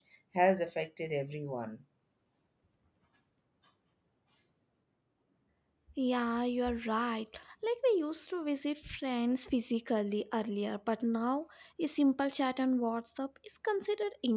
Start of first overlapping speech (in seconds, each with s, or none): none